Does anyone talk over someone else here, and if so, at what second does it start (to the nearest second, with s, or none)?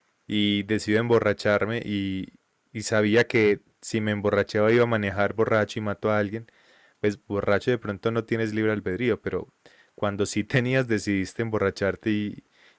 none